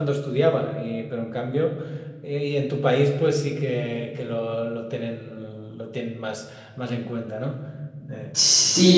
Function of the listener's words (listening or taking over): taking over